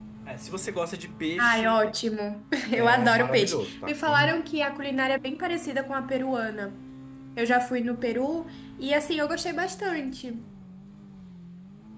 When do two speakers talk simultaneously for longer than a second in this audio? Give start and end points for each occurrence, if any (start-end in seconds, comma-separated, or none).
2.7-4.3